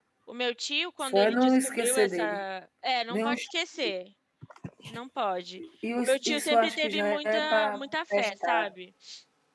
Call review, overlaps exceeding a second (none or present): present